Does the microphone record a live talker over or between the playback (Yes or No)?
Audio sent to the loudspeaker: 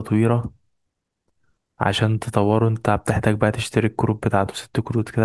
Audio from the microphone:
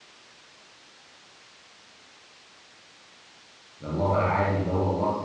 Yes